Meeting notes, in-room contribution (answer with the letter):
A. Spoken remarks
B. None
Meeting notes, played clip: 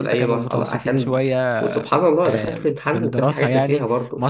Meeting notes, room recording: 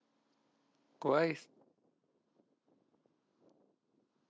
A